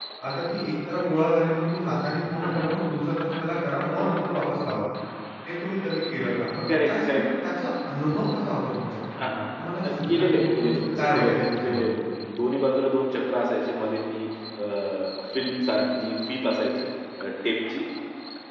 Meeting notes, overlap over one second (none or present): present